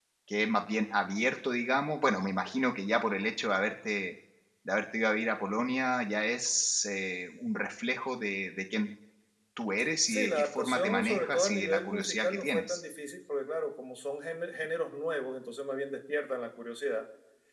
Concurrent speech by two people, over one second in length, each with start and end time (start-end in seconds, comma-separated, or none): 10.1-12.8